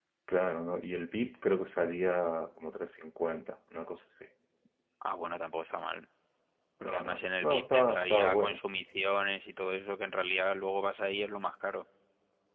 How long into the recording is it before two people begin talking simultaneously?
6.8 s

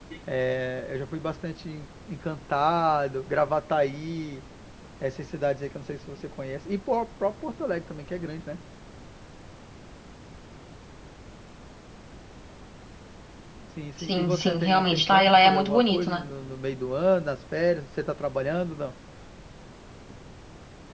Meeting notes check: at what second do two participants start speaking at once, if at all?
14.0 s

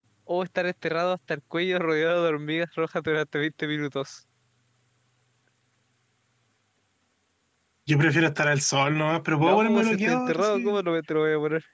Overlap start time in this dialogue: 9.3 s

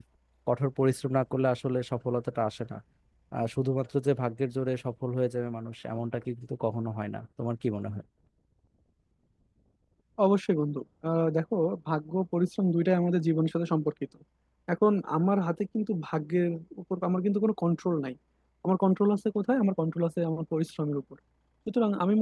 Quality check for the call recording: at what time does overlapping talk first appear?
none

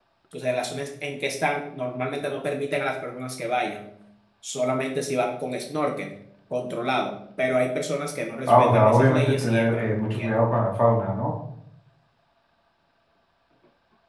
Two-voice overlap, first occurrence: 8.5 s

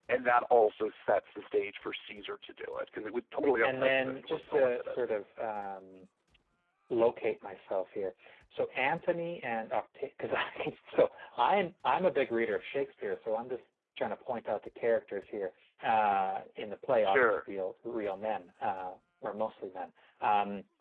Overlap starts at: 3.6 s

